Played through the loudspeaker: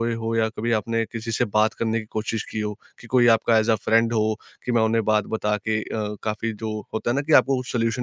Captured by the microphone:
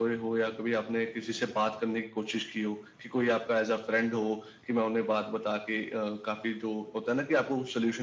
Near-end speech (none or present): none